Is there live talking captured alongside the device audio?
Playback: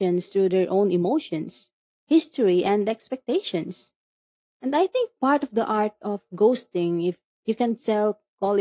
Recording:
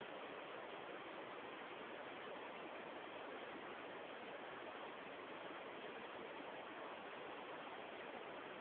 No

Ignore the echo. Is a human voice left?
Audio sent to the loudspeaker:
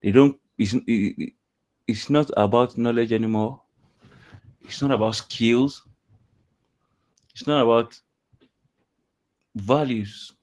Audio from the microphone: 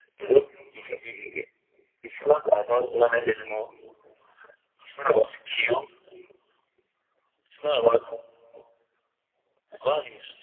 No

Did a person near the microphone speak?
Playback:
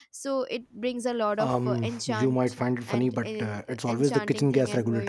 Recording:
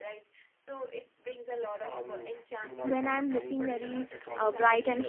Yes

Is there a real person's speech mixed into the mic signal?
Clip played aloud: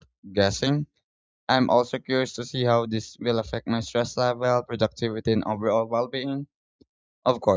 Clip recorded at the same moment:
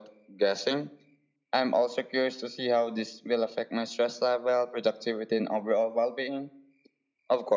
No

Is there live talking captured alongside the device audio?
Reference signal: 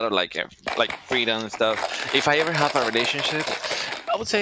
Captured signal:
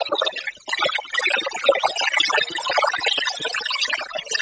No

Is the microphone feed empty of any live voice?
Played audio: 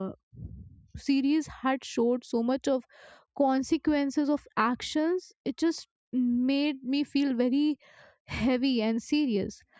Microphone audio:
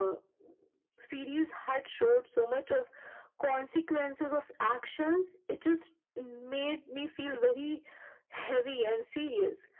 Yes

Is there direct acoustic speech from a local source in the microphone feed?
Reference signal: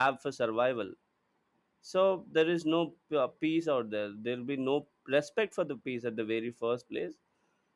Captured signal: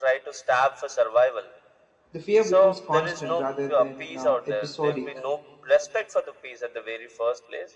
Yes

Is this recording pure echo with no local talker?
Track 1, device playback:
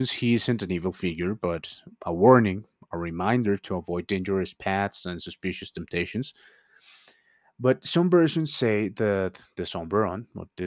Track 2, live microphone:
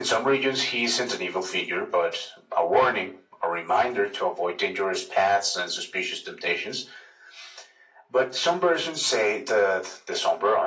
Yes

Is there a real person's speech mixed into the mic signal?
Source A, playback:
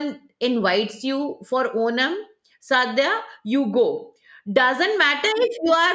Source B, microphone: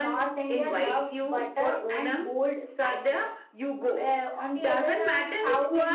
Yes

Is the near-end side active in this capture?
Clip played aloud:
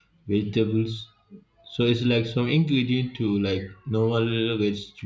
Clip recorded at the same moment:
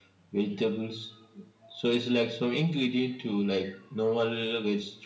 No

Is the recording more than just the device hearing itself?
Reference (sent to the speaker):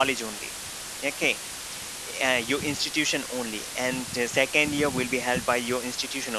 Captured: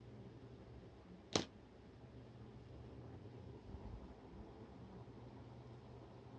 No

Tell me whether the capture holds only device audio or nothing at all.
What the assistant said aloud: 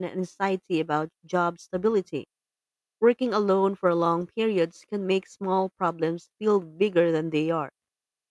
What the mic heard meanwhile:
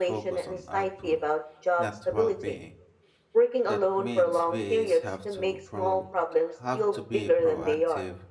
No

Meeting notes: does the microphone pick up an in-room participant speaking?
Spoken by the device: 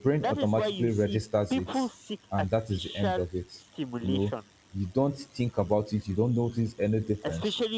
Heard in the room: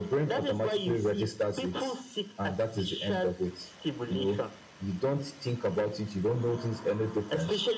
No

